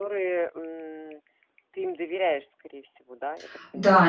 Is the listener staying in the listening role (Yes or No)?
No